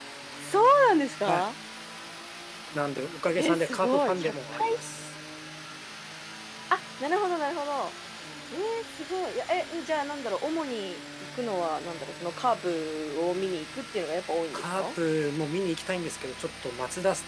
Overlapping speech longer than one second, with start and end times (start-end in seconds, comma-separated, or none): 3.4-4.8